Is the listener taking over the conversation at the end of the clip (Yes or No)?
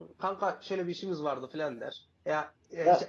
No